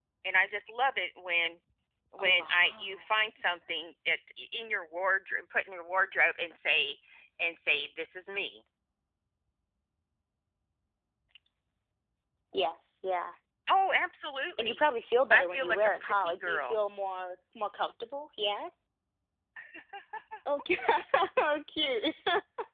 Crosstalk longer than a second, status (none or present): present